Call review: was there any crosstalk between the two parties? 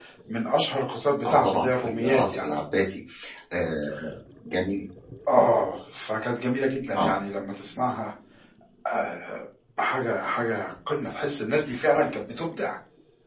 Yes, from 1.2 s

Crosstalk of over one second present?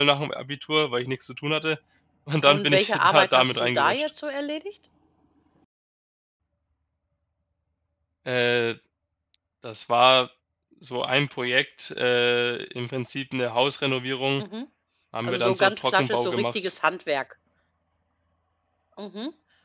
Yes, from 2.5 s

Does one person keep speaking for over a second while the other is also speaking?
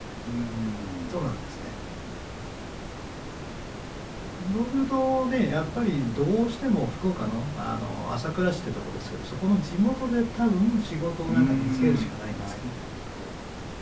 Yes, from 11.2 s

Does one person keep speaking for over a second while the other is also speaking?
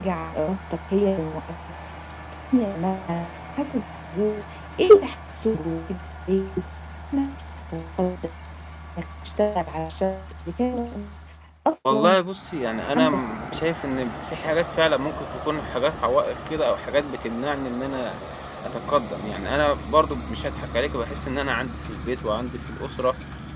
No

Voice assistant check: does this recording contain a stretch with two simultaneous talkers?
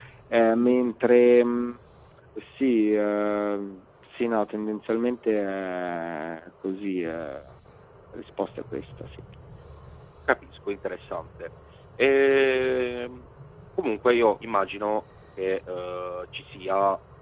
No

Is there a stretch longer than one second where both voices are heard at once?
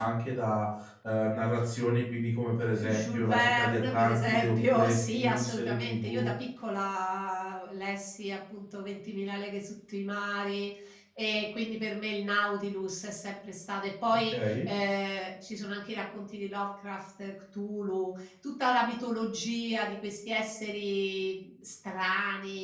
Yes, from 2.7 s

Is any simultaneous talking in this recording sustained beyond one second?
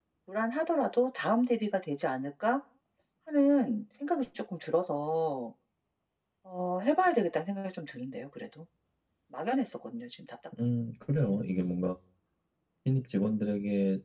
No

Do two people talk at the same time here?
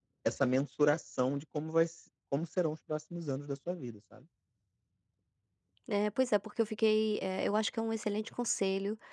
No

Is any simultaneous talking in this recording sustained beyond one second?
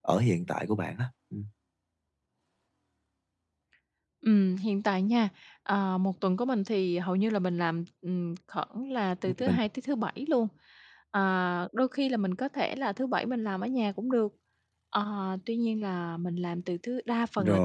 No

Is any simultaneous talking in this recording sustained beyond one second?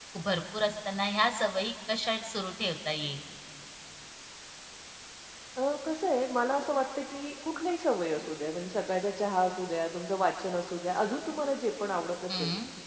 No

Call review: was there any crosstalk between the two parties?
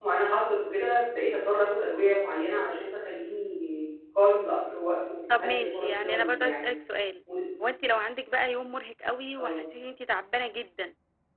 Yes, from 5.3 s

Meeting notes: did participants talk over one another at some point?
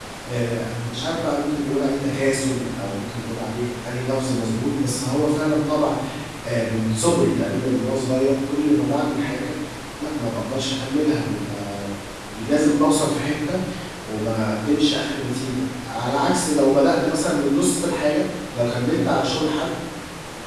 No

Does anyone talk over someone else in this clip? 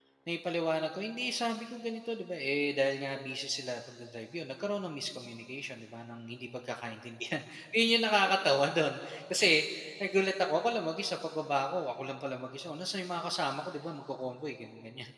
No

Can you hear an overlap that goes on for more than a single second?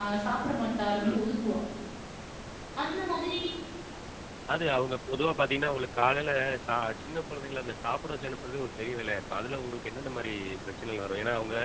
No

